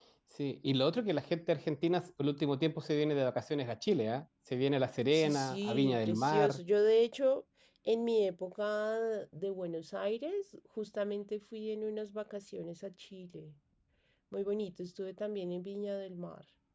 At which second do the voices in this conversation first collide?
5.1 s

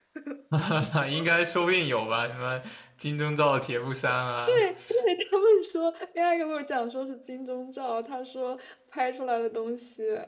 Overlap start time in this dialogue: none

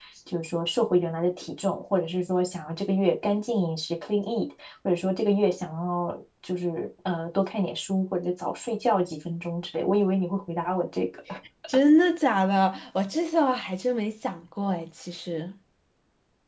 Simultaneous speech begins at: none

